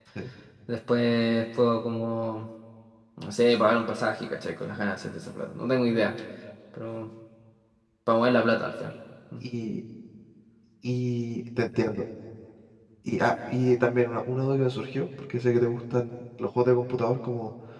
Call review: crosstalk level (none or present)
none